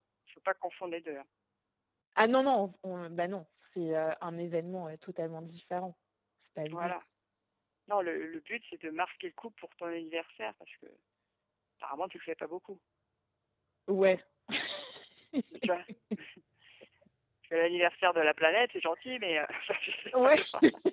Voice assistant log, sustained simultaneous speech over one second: none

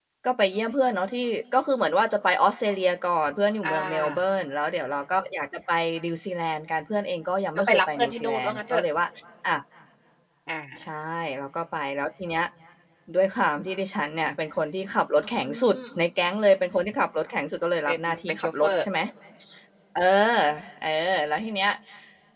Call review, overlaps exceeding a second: present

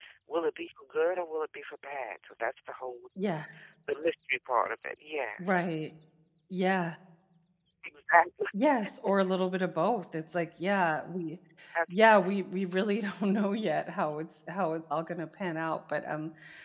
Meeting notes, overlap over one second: none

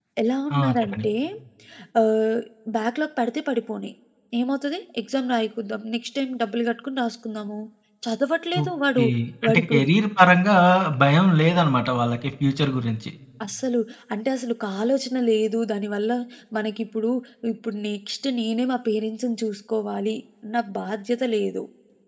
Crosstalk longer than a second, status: none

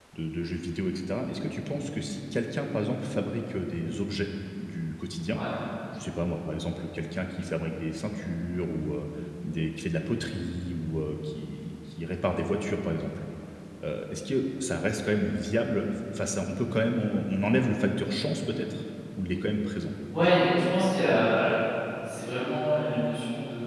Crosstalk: none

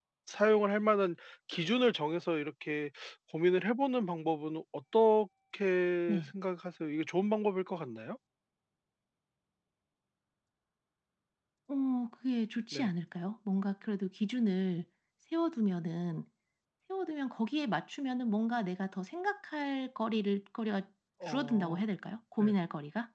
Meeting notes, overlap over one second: none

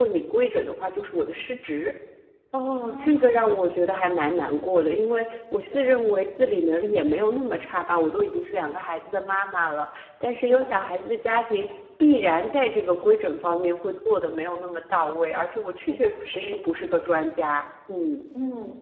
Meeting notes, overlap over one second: present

